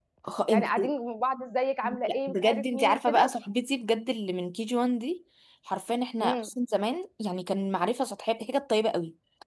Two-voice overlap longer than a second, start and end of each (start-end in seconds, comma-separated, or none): 1.8-3.3